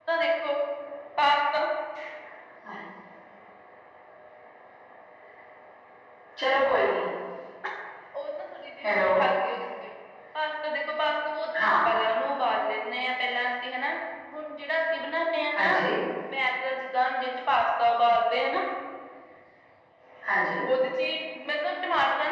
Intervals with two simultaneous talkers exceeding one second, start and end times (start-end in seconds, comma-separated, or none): none